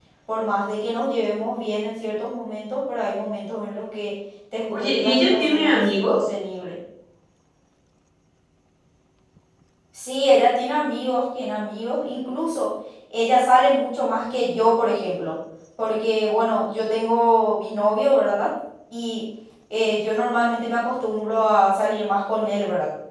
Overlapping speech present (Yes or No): Yes